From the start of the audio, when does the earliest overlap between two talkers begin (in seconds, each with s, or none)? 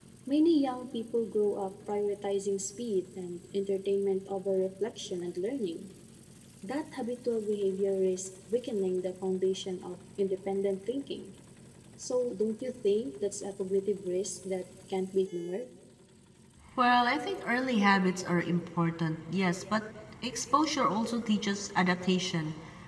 none